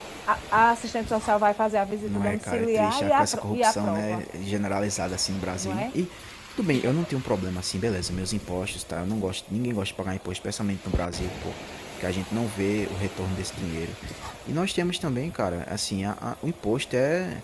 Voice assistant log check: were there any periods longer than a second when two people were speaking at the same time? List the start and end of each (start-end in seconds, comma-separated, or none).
2.1-4.2